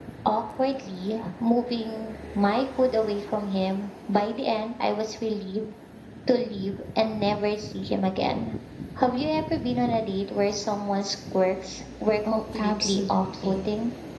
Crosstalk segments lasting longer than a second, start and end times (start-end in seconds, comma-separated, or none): 12.3-13.7